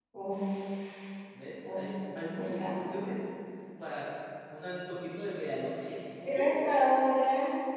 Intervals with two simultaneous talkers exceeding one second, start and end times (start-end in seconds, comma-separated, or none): 1.7-3.0